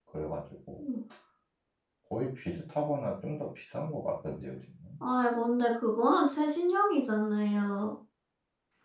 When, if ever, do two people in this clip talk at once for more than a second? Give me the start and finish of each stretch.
none

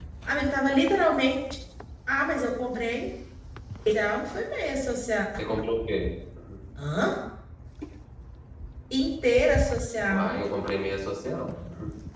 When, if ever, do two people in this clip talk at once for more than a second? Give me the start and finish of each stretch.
none

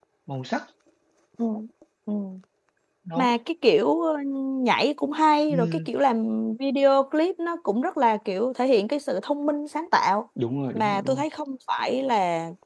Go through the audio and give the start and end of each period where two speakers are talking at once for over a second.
none

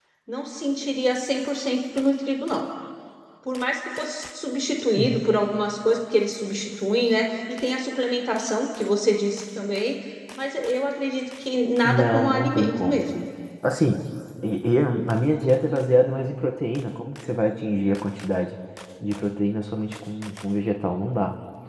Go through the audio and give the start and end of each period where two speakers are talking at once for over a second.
11.8-13.1

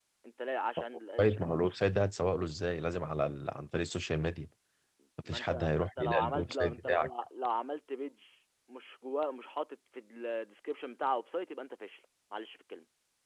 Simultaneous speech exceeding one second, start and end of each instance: 5.2-7.1

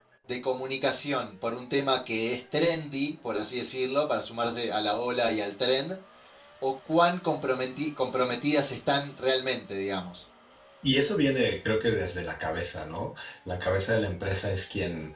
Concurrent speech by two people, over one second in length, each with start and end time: none

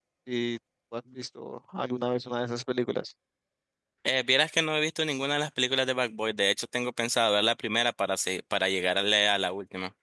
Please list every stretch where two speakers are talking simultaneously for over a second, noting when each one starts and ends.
none

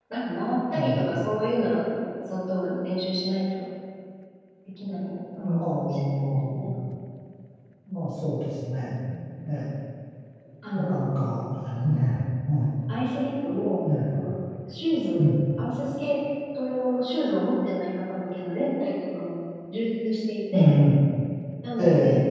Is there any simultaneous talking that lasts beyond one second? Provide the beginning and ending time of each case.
5.5-6.7

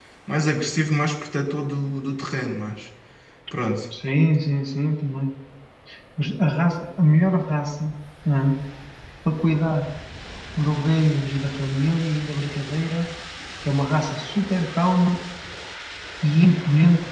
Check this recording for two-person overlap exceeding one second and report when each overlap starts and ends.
none

